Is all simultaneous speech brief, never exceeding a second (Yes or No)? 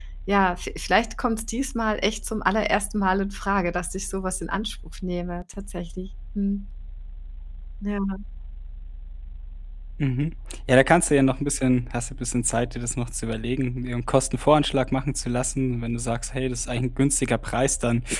Yes